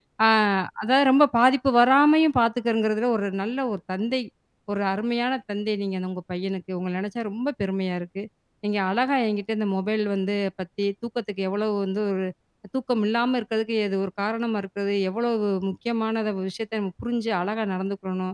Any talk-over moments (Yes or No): No